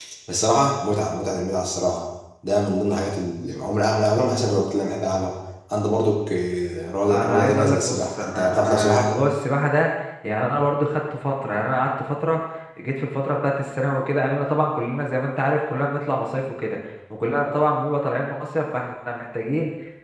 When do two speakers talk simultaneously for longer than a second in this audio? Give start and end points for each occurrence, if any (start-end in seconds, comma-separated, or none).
7.1-9.1